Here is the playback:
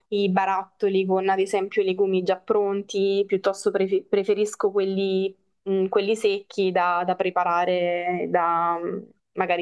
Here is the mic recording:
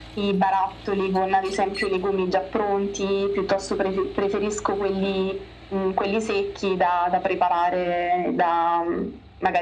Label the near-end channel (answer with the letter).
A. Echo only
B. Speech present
A